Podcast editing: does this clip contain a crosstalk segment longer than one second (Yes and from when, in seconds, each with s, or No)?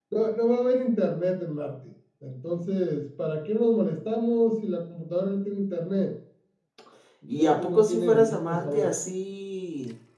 Yes, from 7.4 s